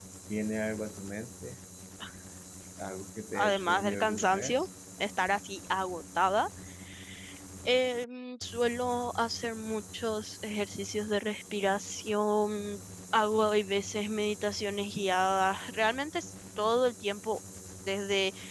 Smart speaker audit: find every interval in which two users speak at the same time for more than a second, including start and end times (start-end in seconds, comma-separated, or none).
3.3-4.7